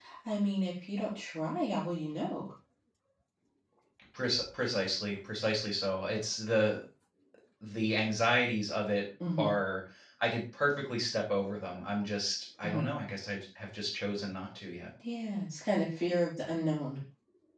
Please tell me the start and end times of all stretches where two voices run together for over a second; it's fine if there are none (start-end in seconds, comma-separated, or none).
none